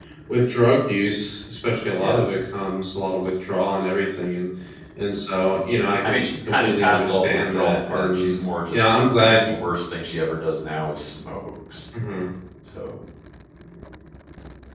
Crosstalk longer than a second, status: present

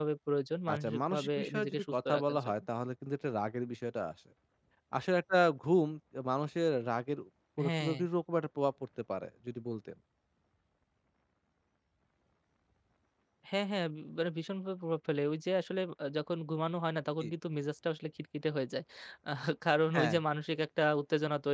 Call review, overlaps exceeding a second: present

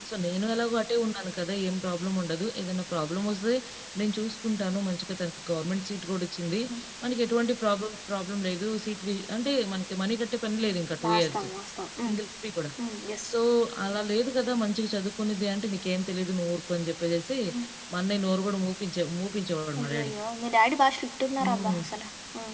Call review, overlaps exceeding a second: none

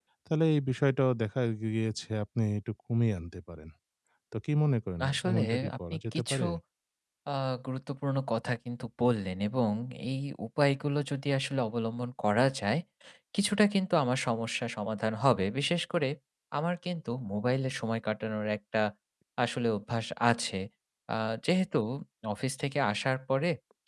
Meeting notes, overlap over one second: present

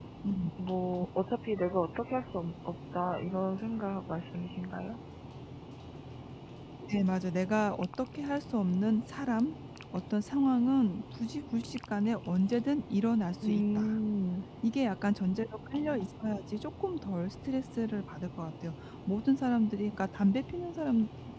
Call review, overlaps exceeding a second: none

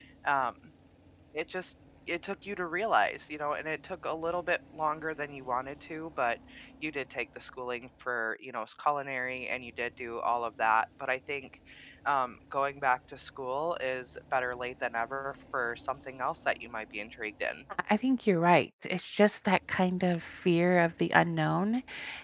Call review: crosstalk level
none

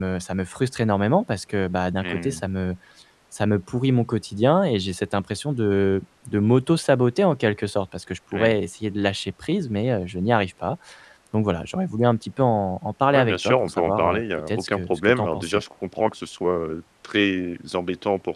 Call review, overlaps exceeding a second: present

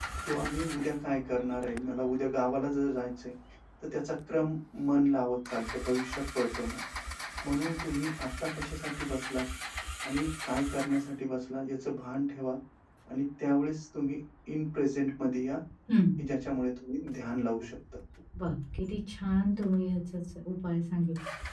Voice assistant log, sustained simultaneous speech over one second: none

